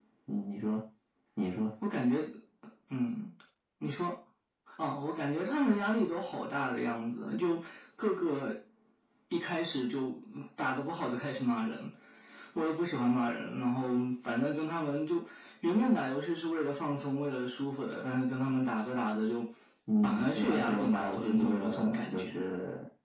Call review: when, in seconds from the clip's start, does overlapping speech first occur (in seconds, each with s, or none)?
20.0 s